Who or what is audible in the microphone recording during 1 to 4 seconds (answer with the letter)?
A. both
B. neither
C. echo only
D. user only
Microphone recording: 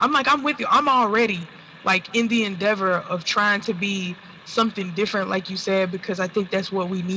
C